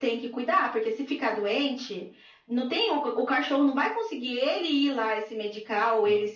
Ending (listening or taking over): listening